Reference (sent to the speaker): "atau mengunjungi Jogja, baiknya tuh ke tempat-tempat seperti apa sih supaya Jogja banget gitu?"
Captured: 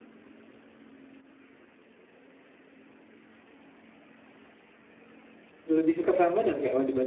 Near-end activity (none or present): present